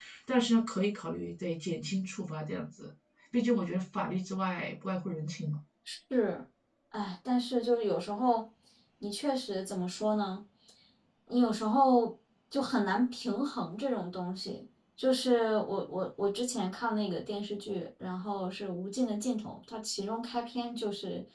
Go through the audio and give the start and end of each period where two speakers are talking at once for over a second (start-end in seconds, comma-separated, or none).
none